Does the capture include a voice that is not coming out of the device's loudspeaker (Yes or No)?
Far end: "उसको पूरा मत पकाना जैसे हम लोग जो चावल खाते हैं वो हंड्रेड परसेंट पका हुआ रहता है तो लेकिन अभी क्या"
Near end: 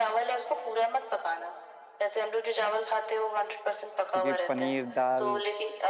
Yes